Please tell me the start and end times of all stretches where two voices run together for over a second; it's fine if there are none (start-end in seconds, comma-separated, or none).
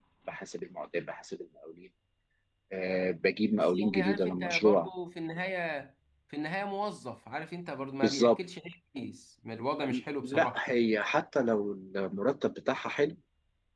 3.6-4.9